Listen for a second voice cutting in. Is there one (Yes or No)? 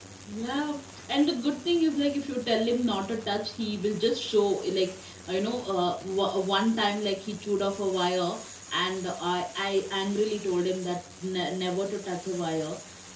No